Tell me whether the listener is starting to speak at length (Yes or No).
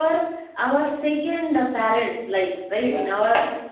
No